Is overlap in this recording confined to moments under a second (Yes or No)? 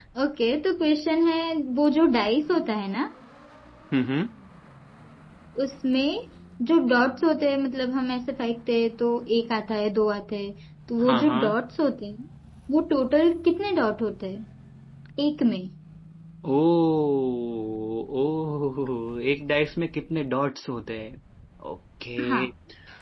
Yes